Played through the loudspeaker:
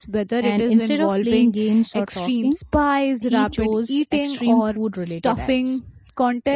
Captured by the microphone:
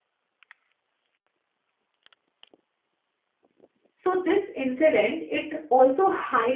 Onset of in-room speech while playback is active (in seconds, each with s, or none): 4.0 s